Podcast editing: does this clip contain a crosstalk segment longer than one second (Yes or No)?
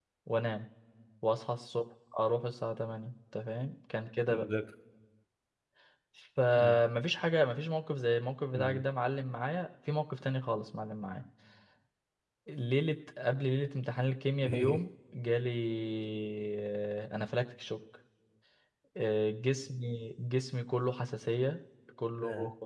No